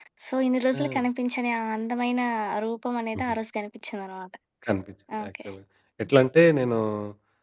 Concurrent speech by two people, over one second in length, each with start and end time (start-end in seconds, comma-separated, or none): none